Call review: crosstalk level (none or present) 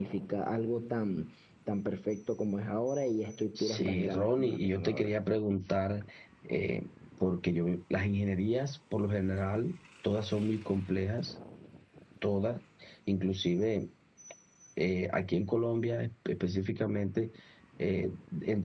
present